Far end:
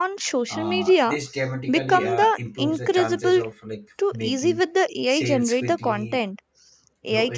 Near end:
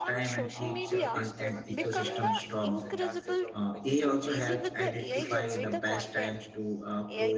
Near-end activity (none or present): present